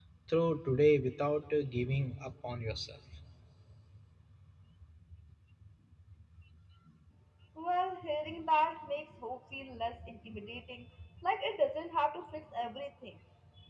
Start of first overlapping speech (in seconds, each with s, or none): none